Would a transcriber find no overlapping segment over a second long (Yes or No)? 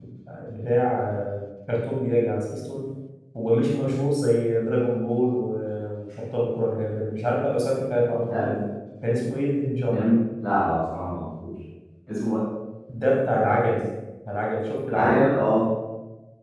Yes